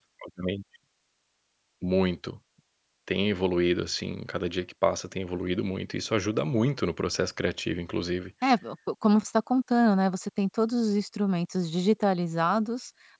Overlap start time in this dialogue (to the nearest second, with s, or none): none